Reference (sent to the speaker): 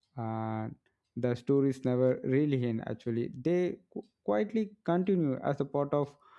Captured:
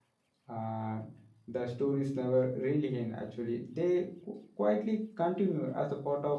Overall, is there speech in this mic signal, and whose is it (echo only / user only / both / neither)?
echo only